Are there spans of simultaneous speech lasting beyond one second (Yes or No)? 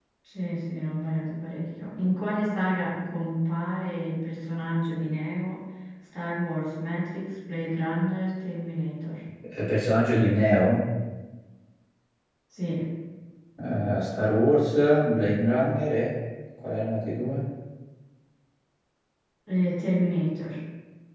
No